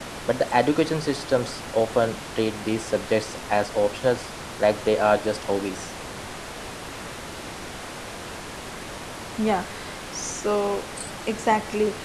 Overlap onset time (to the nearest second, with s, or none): none